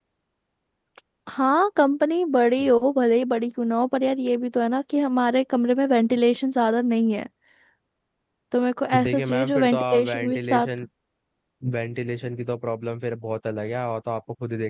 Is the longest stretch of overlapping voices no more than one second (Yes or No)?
No